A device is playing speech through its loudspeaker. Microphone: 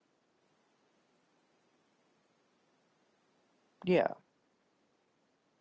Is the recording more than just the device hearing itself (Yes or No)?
Yes